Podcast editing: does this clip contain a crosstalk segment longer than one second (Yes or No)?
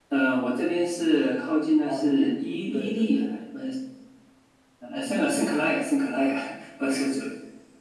Yes